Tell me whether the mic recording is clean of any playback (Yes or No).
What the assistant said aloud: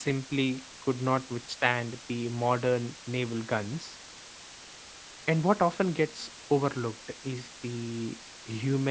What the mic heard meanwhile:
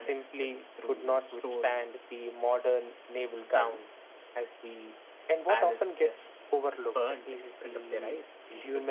No